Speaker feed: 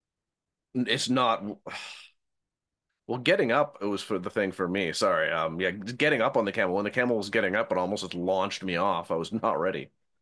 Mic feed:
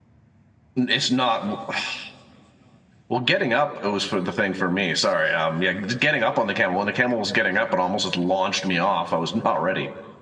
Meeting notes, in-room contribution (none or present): none